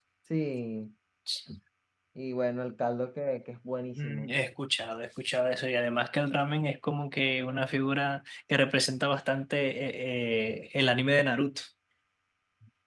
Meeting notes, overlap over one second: none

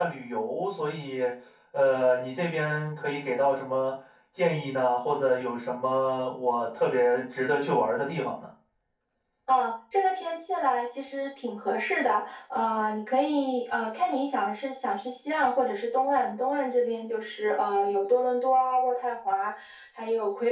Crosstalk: none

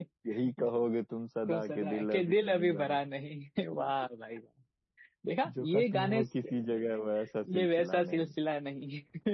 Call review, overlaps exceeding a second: present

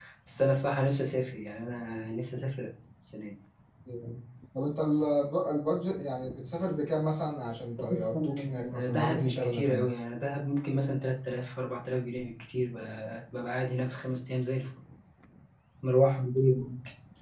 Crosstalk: present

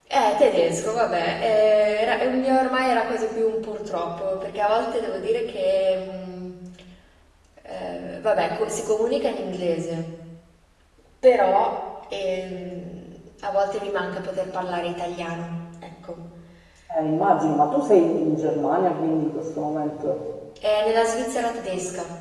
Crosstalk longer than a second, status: none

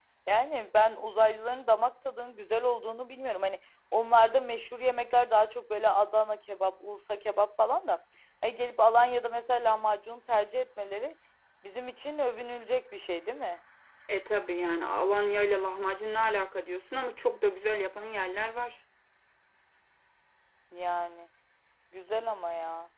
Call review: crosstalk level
none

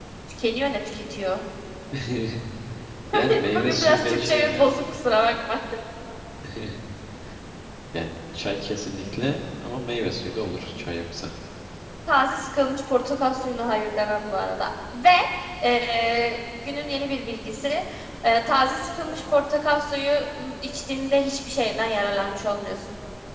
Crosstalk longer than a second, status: present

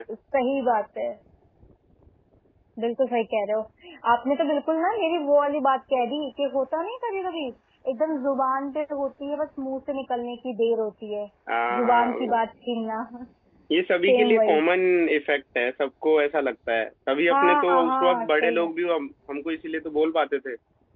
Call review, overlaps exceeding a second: present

